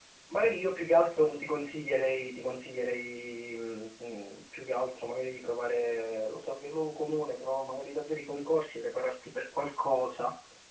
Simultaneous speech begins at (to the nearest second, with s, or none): none